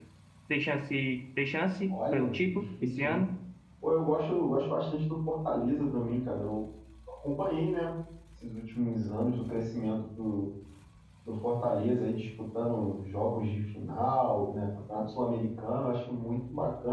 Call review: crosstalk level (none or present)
present